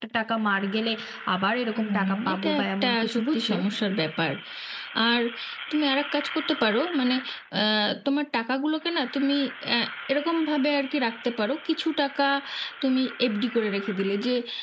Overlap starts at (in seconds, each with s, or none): 1.8 s